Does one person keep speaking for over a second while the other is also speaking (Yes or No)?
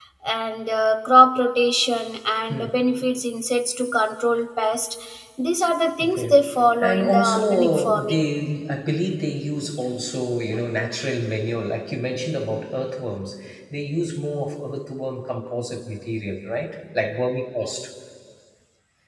Yes